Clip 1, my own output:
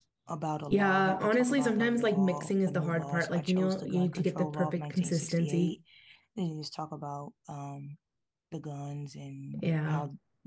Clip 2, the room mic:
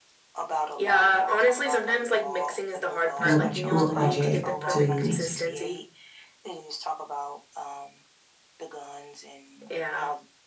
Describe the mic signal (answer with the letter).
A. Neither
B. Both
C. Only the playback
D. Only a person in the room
B